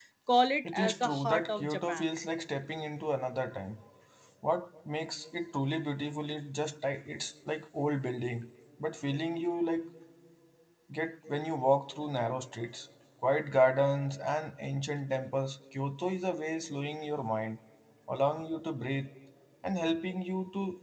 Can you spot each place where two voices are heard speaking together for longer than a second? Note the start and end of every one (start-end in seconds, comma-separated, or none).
0.6-2.2